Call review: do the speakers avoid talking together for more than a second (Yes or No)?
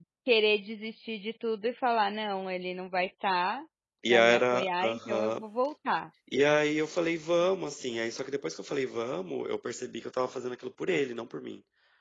No